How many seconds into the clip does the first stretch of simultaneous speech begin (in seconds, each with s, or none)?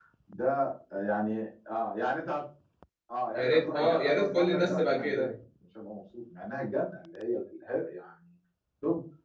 3.4 s